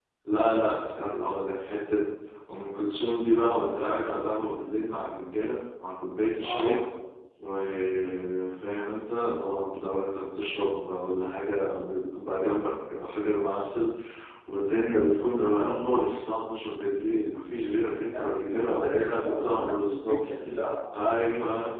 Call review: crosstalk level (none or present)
present